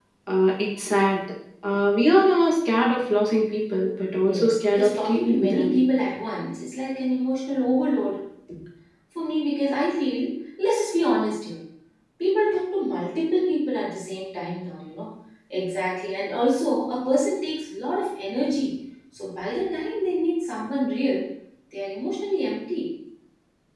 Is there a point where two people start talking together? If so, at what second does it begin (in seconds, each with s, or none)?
4.2 s